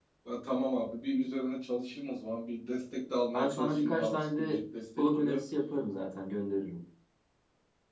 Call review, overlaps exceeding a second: present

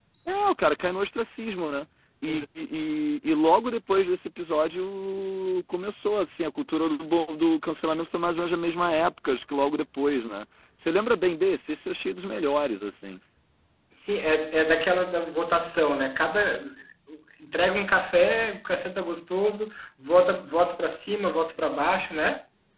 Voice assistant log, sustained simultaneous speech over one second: none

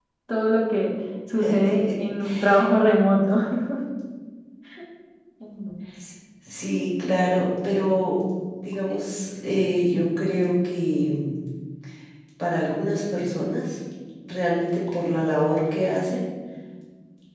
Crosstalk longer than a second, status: none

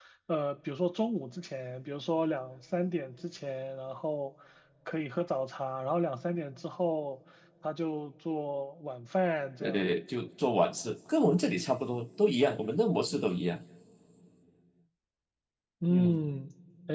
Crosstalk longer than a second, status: none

